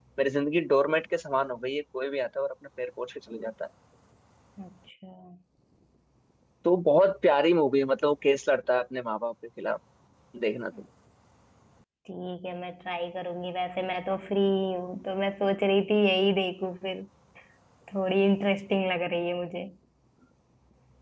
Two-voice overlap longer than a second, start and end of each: none

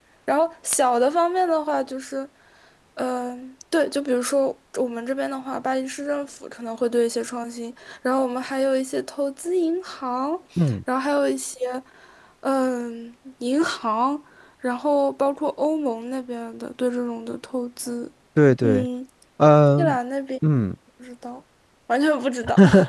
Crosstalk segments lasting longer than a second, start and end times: none

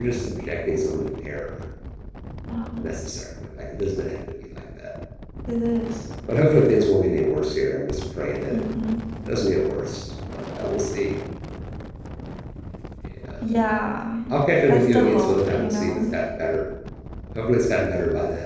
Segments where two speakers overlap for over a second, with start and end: 14.7-16.0

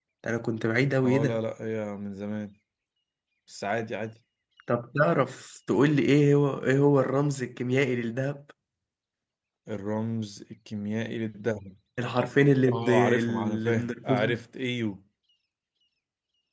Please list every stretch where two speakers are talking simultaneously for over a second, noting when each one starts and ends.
12.7-14.4

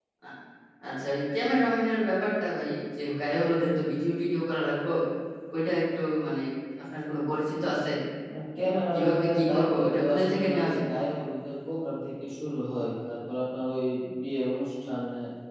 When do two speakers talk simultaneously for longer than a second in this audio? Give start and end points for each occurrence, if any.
8.6-10.8

